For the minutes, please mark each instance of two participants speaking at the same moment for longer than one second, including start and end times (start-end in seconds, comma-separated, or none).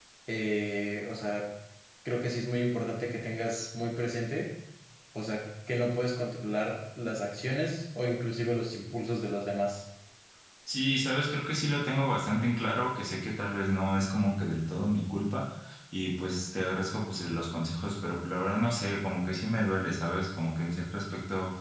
none